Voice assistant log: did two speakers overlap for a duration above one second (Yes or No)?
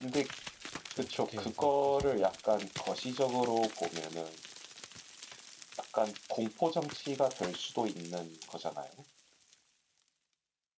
Yes